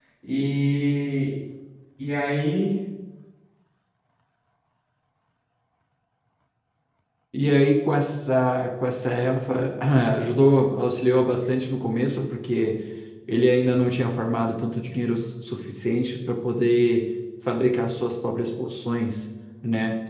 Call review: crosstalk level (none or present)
none